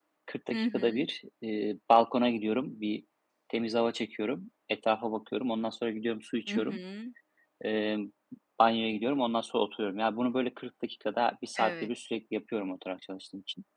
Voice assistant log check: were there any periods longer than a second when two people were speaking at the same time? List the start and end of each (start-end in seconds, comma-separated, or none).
none